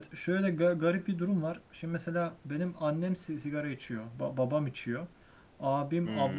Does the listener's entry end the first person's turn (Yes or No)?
No